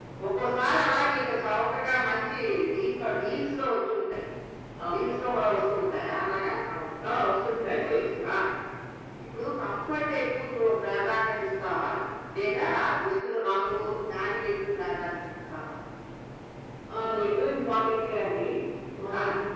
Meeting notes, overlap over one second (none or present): none